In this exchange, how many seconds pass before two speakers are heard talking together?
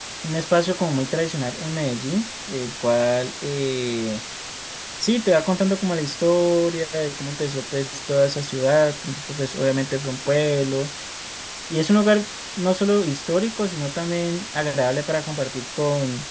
none

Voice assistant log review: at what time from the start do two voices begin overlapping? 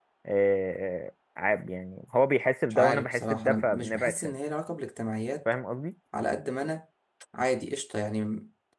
2.7 s

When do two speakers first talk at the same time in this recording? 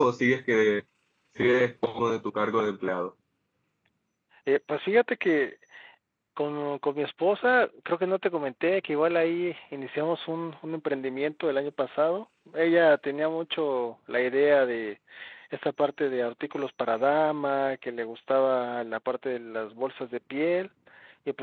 none

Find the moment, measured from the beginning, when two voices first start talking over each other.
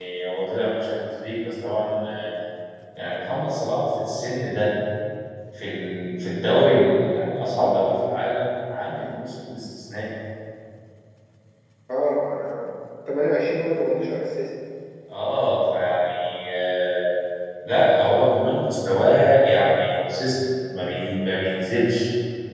none

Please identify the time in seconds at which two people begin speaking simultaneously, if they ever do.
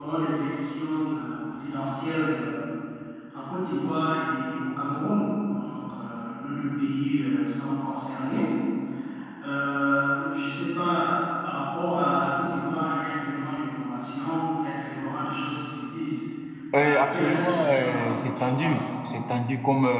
16.8 s

